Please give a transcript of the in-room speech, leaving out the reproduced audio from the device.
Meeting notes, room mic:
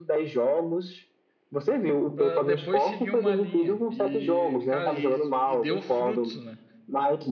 para depois seguir uma linha. E, cara, e, e deu frutos, né?

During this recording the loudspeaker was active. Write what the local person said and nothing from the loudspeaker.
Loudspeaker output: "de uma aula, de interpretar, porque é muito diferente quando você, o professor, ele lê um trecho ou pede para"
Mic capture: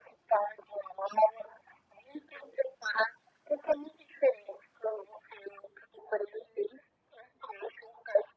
none

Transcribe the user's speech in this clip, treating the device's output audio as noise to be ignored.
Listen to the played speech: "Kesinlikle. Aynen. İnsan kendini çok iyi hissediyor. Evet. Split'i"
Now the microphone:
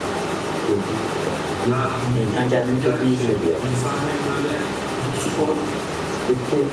Ya yüzmek çok güzel bir şey. İnsana hem böyle hem spor

